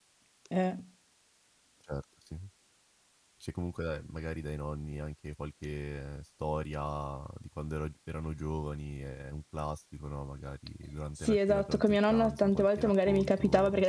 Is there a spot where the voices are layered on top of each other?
Yes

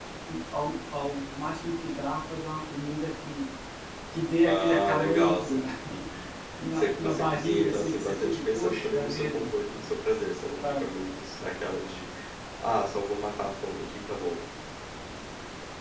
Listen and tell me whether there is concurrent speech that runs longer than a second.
Yes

